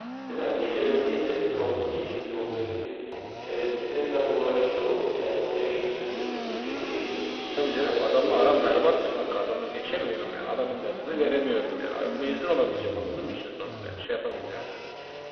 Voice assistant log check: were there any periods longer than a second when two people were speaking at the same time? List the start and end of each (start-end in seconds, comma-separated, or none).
7.6-9.2